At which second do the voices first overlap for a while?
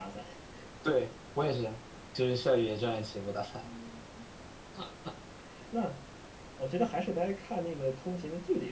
none

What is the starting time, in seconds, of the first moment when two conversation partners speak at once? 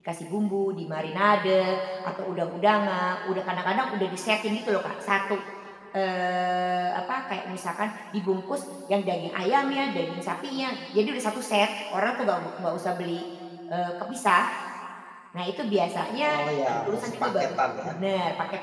16 s

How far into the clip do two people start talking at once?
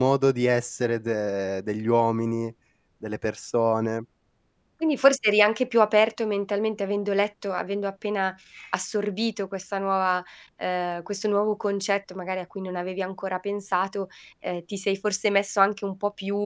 none

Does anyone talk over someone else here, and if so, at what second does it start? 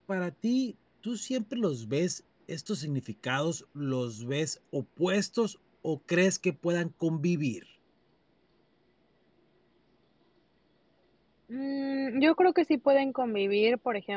none

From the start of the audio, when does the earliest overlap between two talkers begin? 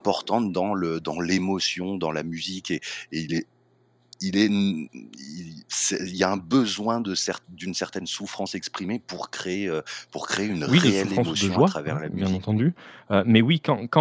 11 s

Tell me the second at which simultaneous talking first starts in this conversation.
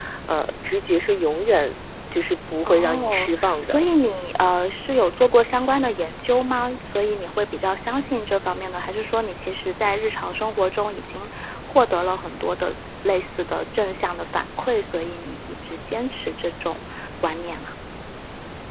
3 s

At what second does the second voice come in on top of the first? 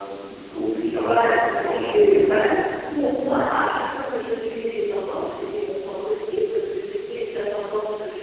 1 s

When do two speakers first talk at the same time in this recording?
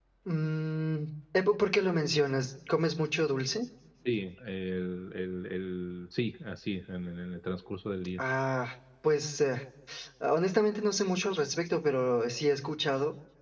none

